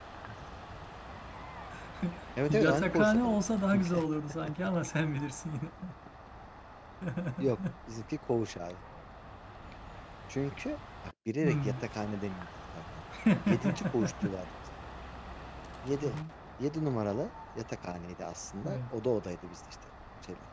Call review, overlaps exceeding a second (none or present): present